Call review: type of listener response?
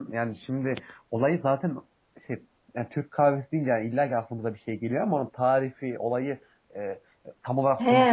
taking over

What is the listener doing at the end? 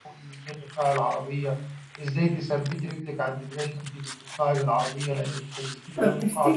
taking over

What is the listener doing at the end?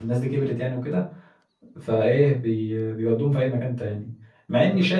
listening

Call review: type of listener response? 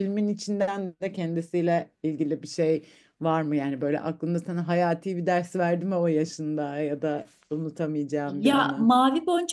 taking over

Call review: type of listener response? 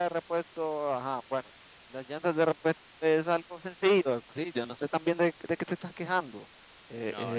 listening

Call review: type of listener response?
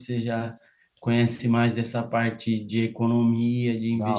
listening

